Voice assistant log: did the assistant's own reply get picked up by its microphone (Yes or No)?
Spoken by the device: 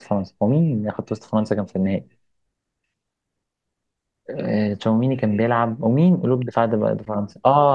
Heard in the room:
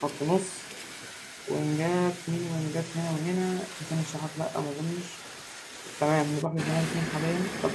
No